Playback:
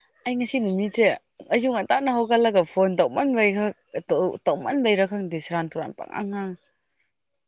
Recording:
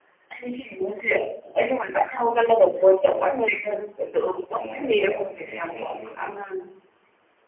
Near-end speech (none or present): present